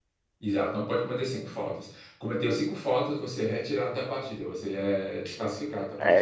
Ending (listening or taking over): taking over